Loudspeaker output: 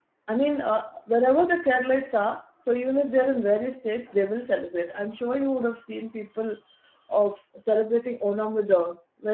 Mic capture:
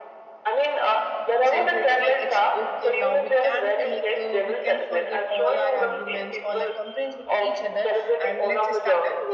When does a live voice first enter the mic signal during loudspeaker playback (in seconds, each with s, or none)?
1.5 s